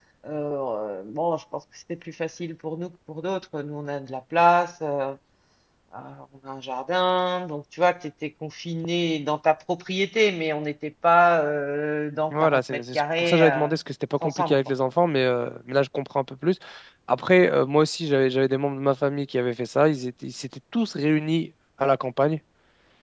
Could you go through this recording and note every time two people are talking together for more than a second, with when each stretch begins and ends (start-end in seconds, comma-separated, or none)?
12.3-13.7